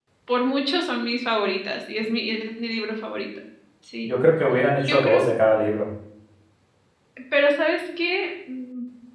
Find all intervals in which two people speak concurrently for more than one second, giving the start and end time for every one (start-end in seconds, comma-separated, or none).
none